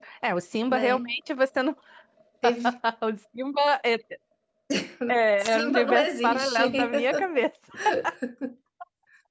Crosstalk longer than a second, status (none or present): present